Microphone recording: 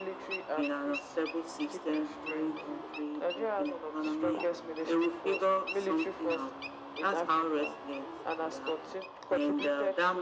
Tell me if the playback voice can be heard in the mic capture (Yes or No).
Yes